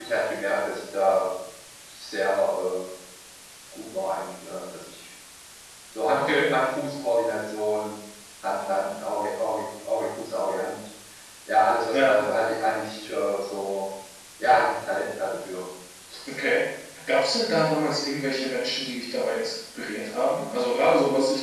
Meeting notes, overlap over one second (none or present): none